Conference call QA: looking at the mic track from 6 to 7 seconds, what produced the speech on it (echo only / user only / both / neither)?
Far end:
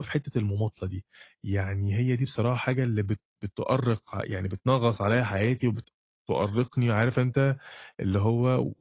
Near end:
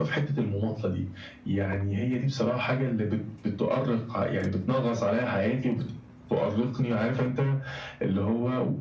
echo only